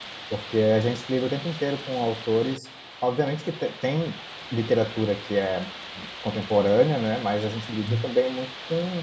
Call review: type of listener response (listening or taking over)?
listening